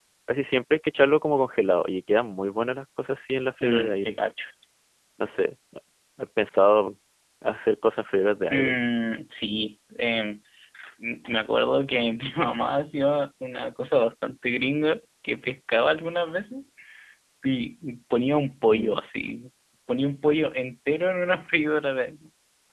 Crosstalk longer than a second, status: none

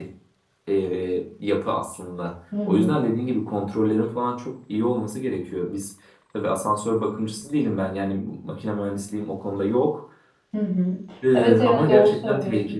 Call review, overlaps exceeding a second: present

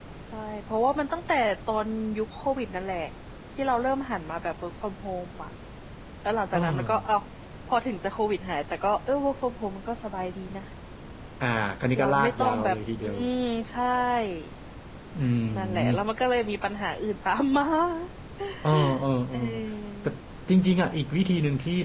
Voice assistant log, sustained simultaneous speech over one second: present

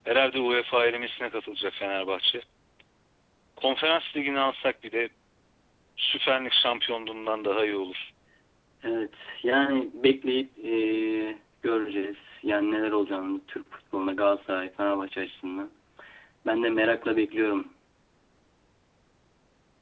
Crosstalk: none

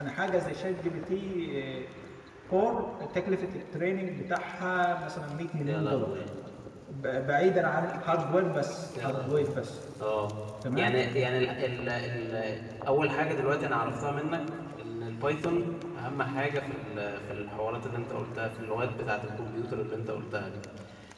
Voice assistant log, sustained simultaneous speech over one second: none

